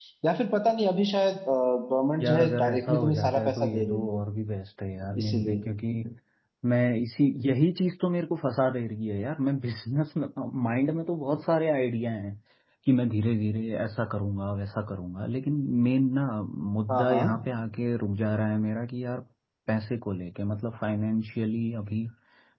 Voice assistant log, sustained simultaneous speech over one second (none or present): present